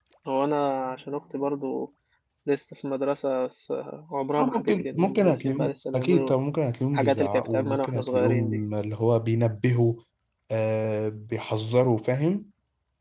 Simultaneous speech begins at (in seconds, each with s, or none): 4.4 s